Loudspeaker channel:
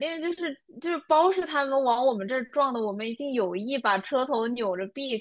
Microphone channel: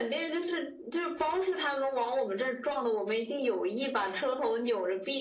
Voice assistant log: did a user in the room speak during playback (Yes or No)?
No